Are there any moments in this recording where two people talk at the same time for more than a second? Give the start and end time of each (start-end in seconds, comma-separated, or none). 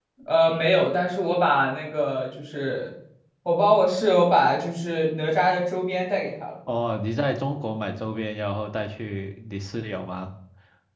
none